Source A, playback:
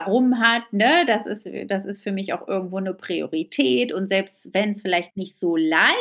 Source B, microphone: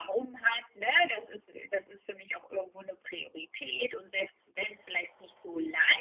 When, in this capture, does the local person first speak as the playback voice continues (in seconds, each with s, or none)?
none